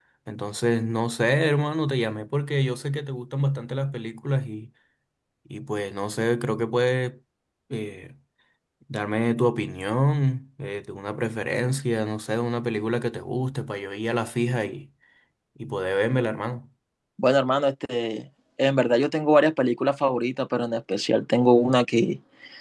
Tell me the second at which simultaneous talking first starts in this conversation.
none

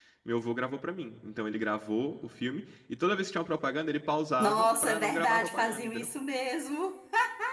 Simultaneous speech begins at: 4.4 s

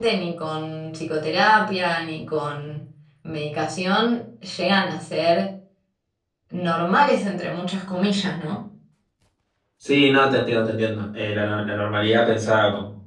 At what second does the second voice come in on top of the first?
none

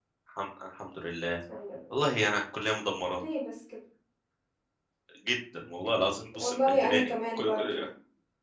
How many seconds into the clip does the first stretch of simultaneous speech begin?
6.3 s

